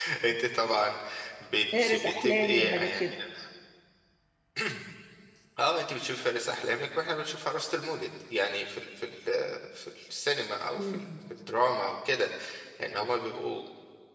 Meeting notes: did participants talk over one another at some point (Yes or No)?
Yes